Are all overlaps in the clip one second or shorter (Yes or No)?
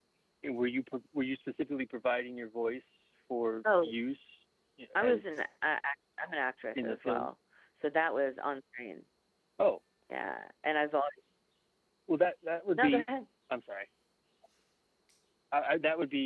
Yes